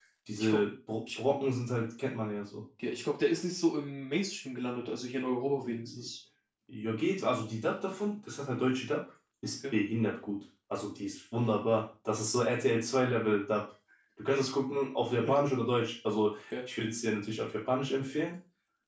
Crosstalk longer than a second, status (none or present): none